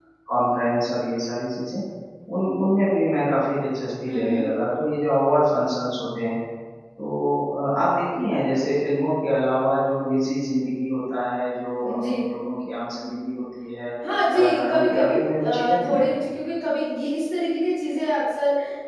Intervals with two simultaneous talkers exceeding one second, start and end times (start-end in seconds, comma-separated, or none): 14.3-16.1